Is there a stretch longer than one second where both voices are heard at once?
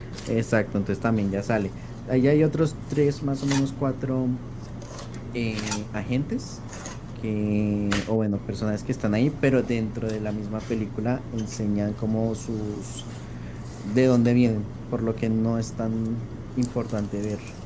No

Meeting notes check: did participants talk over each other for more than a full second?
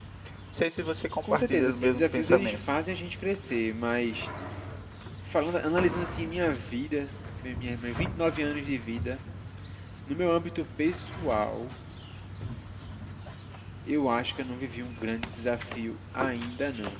Yes, from 1.2 s

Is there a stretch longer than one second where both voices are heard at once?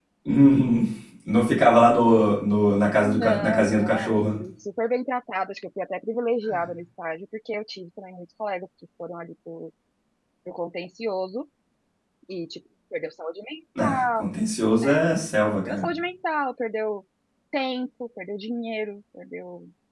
Yes, from 3.0 s

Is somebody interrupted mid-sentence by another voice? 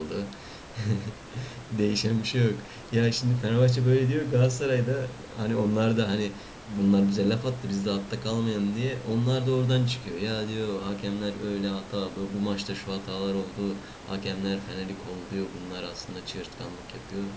No

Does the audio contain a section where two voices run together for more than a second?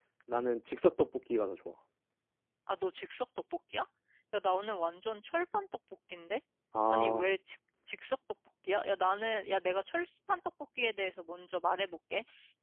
No

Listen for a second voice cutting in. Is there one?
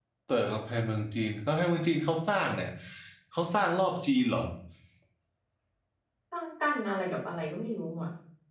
No

